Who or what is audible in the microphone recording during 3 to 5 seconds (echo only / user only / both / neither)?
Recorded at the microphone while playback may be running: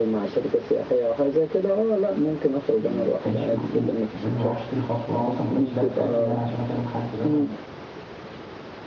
both